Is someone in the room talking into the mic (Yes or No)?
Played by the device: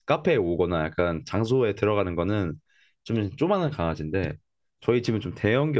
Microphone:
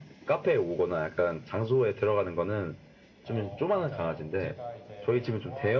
Yes